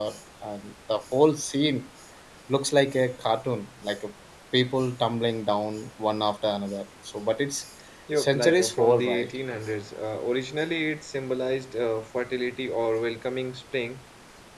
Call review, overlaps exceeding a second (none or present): present